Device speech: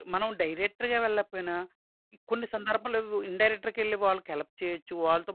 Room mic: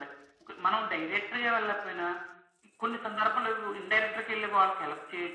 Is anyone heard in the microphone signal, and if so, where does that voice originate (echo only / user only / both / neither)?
echo only